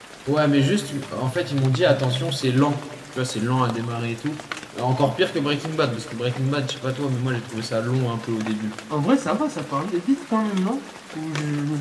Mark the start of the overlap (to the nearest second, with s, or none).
none